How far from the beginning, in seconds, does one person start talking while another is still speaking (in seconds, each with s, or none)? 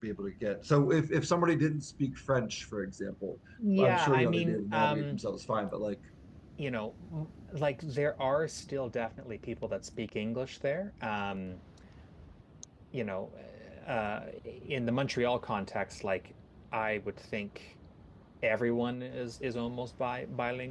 3.8 s